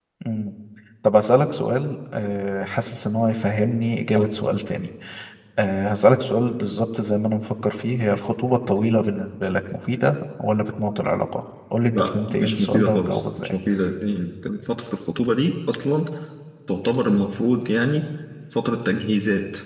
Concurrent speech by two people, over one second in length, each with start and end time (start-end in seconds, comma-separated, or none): 11.9-13.6